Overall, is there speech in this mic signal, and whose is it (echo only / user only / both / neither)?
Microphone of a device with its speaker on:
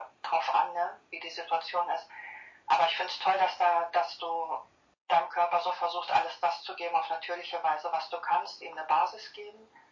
echo only